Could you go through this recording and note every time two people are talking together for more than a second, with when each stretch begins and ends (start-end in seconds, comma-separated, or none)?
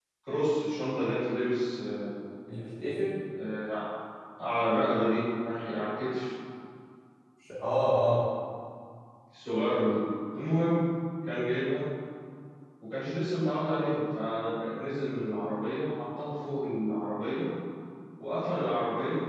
none